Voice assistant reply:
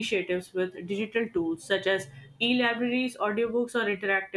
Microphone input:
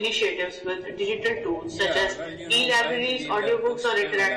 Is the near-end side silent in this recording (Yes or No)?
No